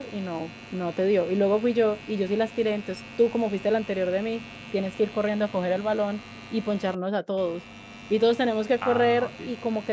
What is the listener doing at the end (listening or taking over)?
listening